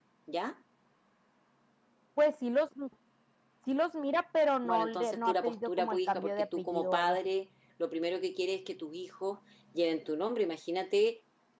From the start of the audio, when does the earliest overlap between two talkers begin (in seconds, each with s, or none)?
4.6 s